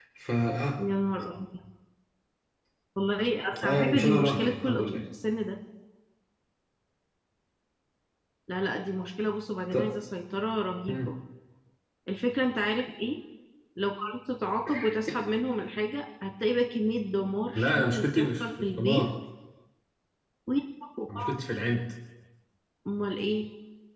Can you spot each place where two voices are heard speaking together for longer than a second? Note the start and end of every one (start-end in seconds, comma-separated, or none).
3.6-5.0, 17.6-19.1